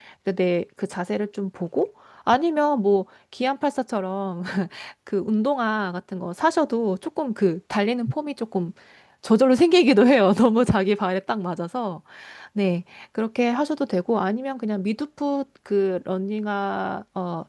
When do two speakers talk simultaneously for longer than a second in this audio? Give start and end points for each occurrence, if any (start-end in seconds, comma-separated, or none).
none